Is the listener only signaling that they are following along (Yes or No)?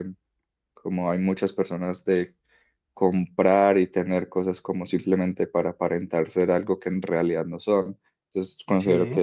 Yes